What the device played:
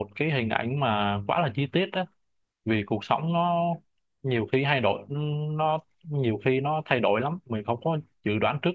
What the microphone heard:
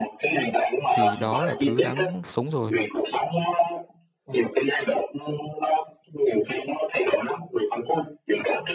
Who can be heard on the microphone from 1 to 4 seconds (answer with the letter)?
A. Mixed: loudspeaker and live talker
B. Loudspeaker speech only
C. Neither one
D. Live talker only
A